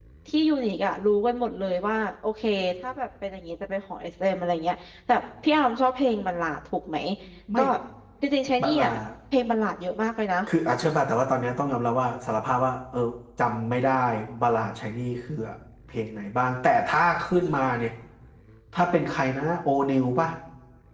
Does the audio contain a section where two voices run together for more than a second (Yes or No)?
No